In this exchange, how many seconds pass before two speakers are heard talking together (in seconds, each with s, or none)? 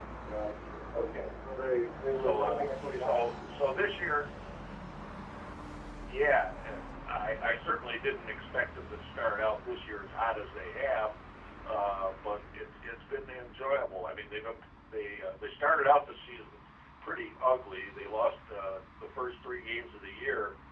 2.1 s